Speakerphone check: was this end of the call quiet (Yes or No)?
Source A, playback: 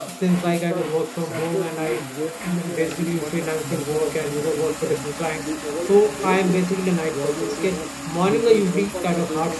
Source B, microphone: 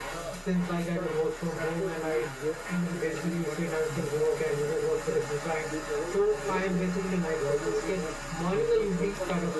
Yes